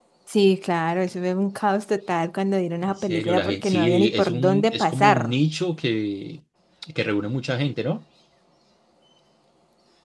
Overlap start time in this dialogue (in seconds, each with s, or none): 2.8 s